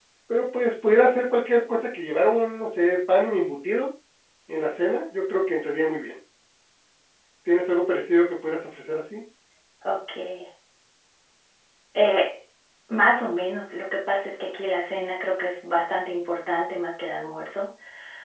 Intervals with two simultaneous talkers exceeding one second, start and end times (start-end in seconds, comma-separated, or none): none